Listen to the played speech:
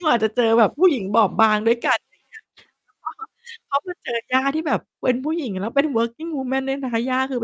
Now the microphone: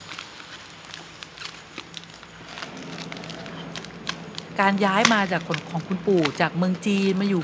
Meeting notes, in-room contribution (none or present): present